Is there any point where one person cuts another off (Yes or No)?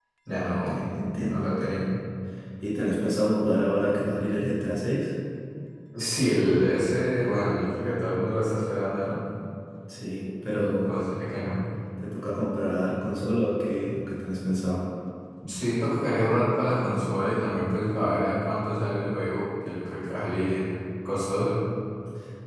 Yes